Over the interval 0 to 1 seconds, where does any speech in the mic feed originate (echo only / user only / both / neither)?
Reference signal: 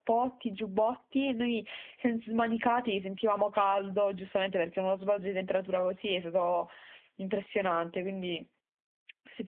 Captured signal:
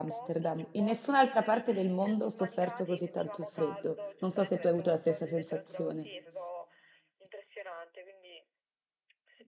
both